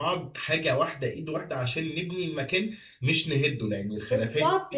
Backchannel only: No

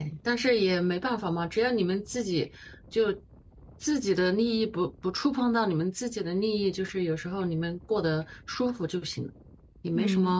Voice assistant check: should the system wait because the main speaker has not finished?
No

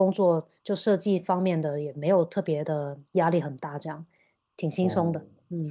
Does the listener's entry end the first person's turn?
Yes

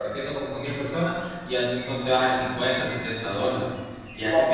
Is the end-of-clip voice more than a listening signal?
No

